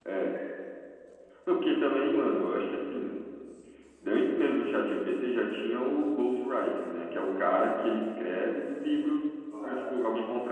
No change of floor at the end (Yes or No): Yes